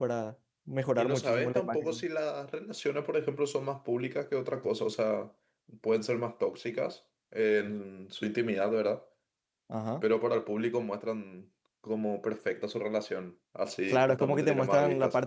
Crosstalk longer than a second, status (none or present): present